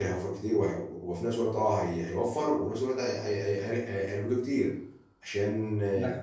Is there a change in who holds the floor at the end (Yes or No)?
No